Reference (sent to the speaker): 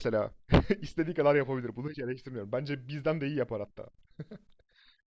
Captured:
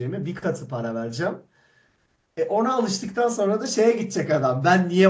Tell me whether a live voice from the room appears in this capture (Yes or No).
Yes